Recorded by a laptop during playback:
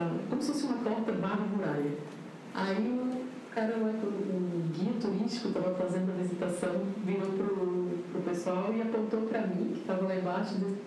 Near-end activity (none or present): none